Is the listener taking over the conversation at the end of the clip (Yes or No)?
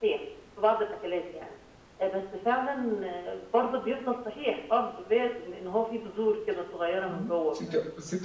Yes